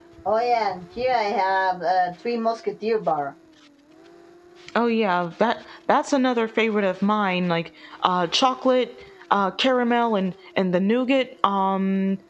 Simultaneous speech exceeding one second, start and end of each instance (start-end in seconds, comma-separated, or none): none